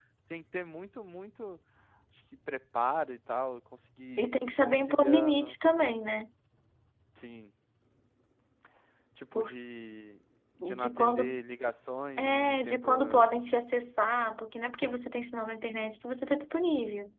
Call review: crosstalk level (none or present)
present